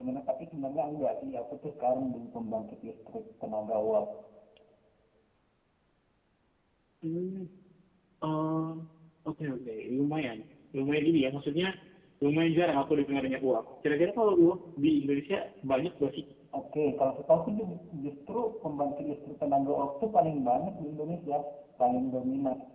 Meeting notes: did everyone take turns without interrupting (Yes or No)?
Yes